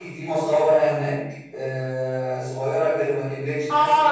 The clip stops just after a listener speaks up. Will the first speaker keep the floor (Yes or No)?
No